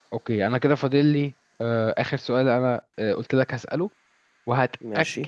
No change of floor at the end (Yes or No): Yes